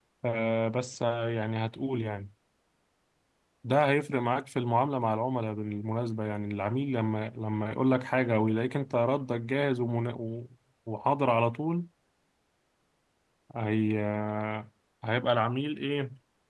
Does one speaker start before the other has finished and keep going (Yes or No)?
No